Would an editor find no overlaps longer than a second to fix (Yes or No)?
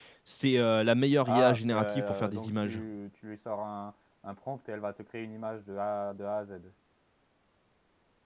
No